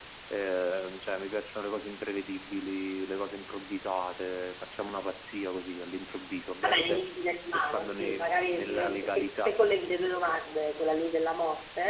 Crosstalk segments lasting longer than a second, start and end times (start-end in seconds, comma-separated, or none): 7.5-9.5